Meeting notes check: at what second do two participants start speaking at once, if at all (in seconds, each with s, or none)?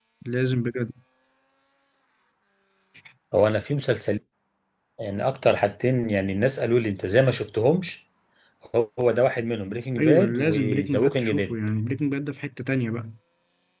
10.0 s